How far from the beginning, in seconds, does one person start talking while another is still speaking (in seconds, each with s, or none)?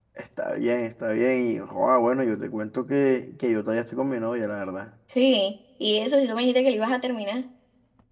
none